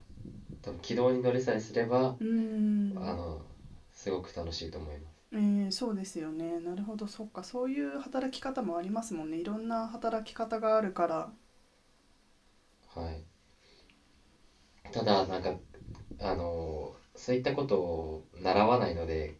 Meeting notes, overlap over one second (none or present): none